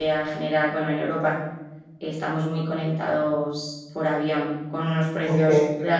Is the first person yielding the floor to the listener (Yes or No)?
No